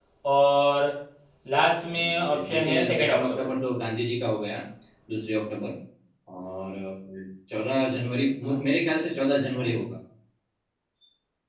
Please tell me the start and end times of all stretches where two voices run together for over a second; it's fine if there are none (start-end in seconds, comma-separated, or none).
2.0-3.5